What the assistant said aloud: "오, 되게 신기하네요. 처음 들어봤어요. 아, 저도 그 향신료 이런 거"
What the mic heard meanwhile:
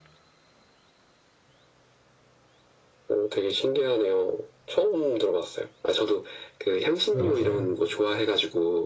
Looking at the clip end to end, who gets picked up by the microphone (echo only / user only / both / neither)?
both